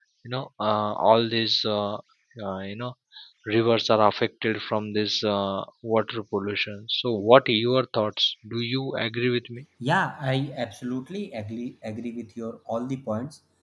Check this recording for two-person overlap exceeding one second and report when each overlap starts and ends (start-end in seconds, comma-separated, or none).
none